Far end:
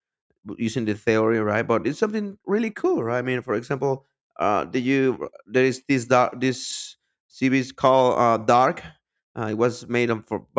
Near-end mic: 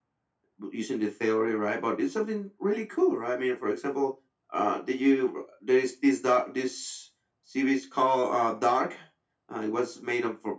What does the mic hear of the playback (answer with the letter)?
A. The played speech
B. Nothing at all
A